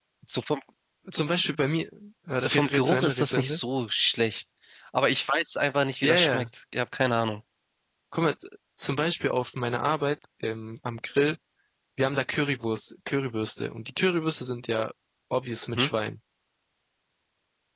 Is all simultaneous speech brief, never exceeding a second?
No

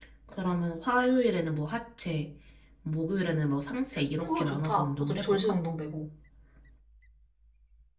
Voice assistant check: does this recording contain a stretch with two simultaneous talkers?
Yes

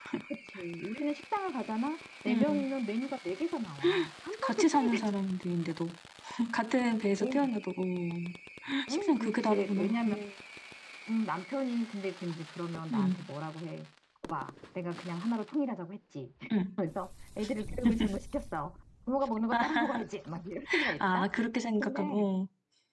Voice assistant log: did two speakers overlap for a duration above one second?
Yes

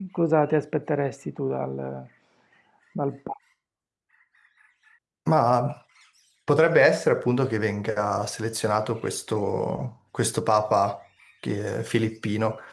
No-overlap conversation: Yes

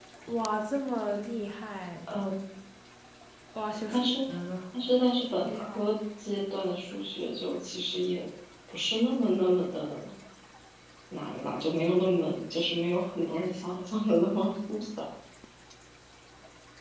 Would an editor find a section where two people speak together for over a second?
No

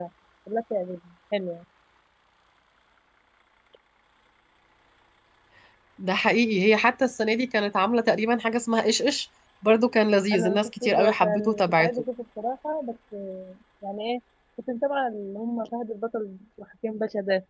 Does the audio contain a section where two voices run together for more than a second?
Yes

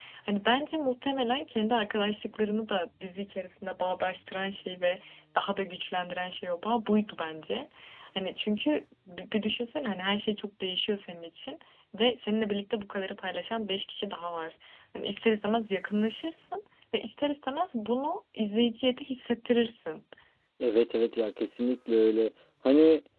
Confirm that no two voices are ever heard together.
Yes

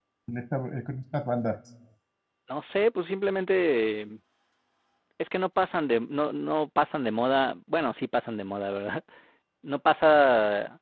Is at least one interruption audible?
No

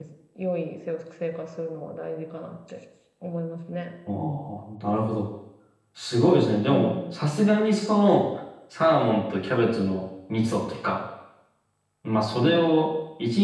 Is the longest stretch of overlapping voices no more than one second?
Yes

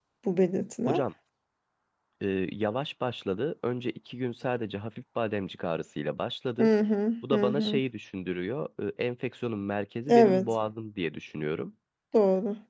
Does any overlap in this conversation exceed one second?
No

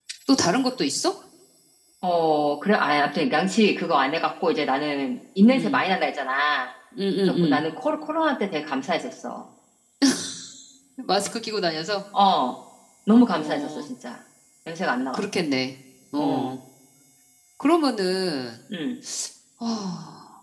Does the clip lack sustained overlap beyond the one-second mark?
Yes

